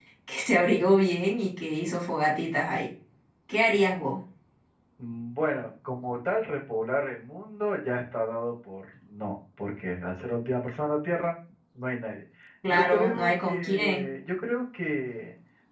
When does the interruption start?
12.7 s

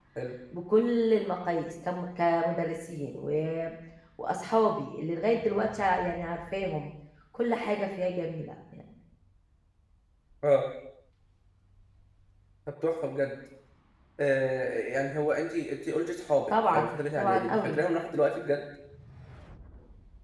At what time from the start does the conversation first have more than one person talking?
16.5 s

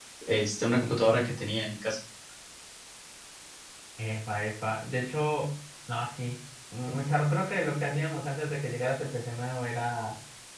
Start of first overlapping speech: none

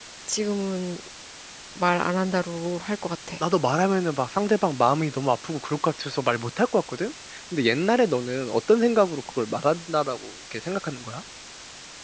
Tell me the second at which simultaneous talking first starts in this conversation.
none

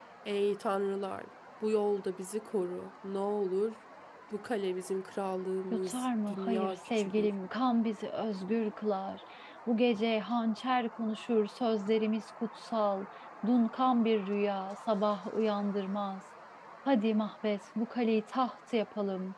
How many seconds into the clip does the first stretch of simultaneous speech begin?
5.9 s

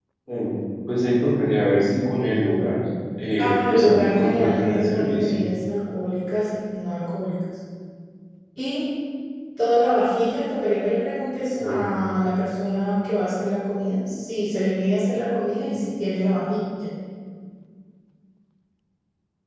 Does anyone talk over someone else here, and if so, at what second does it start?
3.4 s

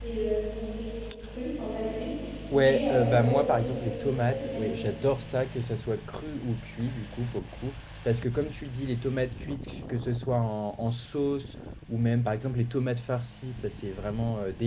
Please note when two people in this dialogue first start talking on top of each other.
2.5 s

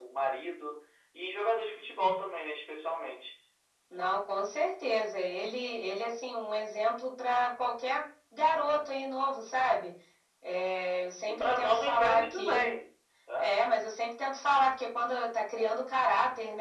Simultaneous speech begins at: 11.3 s

